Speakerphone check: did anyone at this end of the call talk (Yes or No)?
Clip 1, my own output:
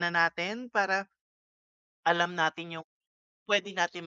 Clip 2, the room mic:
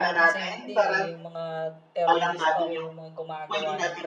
Yes